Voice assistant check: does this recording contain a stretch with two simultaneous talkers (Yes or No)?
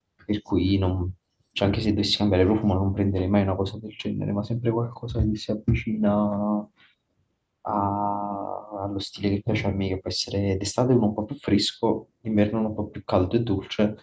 No